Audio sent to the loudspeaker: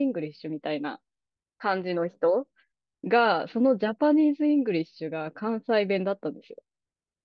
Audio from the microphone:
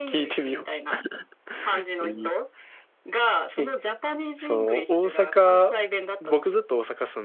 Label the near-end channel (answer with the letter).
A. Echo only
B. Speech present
B